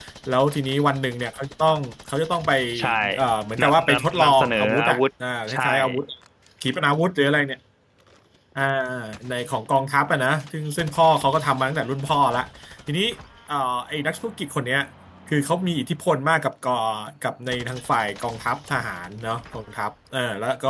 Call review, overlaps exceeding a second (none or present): present